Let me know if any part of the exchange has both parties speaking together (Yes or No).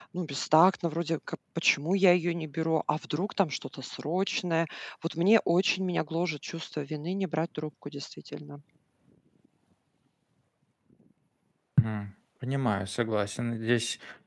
No